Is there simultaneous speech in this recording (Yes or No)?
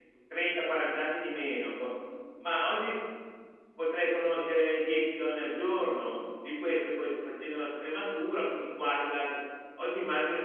No